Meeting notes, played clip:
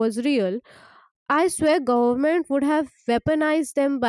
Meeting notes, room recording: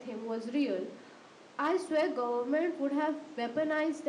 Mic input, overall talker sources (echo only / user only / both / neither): echo only